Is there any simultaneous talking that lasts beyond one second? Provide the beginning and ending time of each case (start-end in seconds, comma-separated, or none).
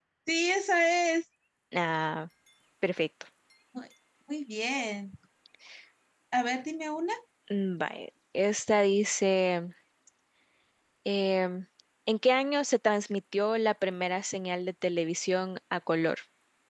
none